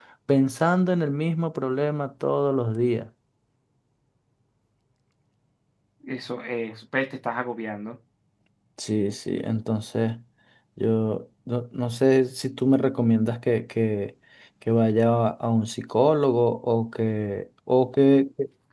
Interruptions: none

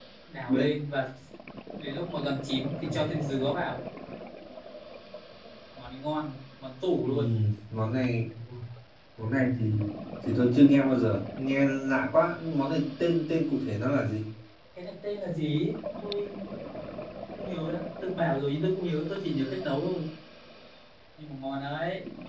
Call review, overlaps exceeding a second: none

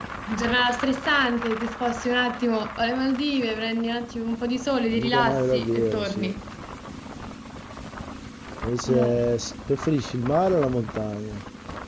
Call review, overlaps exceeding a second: present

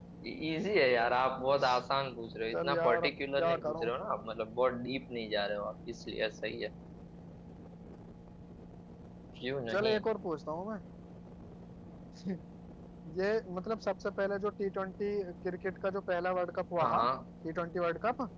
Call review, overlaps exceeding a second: present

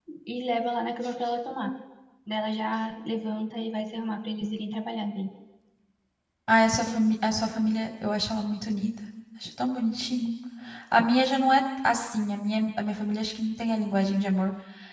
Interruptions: none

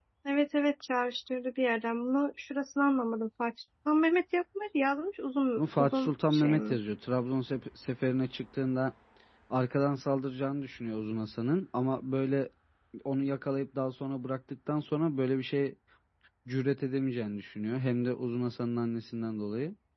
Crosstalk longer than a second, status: present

